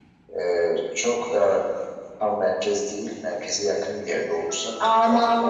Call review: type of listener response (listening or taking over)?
taking over